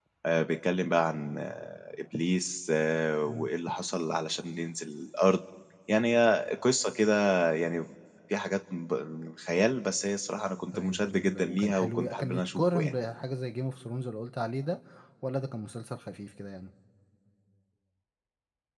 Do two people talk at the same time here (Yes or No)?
Yes